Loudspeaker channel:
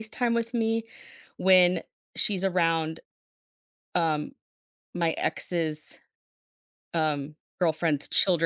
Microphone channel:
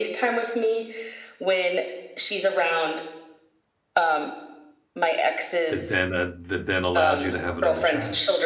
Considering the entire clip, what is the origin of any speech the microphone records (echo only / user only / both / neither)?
both